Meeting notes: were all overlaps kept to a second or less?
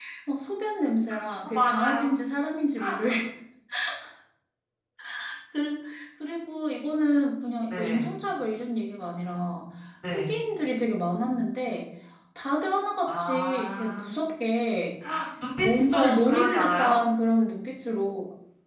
No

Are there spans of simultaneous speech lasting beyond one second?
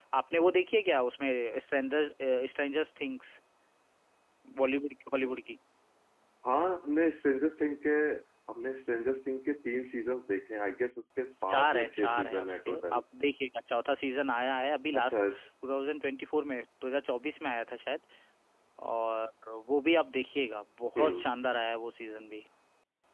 Yes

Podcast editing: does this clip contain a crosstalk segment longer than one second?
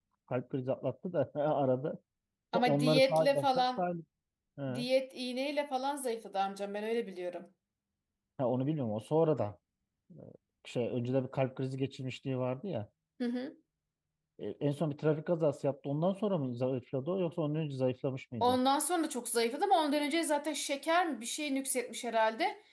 Yes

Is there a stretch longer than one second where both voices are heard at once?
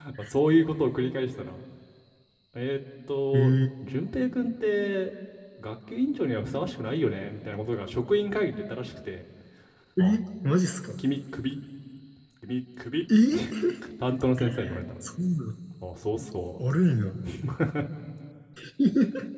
No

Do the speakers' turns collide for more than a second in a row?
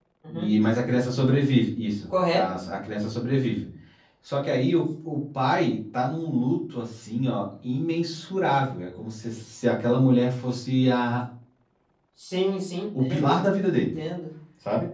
No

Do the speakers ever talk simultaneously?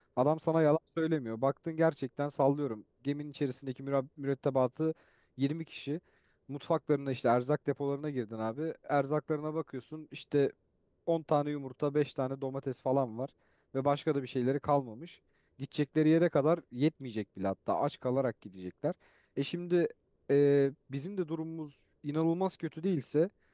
No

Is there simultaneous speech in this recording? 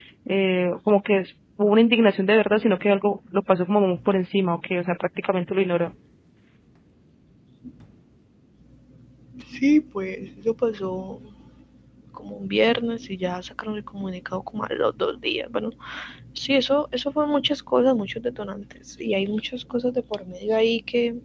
No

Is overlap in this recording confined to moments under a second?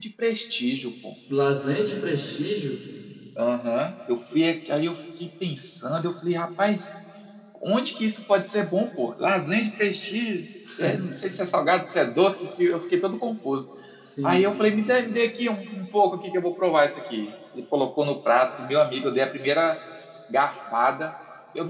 Yes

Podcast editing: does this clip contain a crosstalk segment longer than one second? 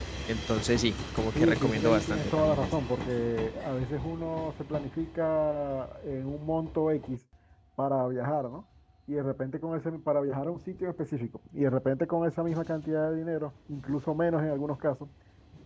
Yes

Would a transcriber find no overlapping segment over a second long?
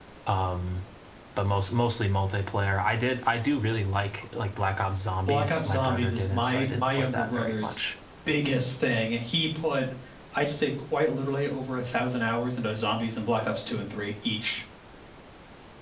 No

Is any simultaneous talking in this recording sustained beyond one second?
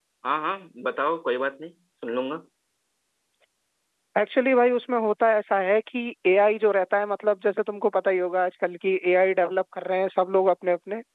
No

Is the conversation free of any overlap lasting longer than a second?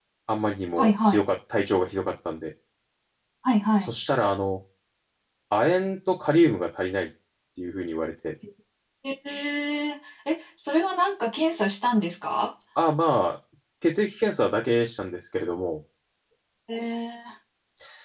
Yes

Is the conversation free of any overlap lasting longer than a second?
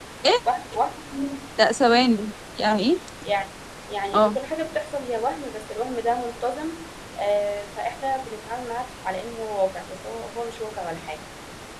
Yes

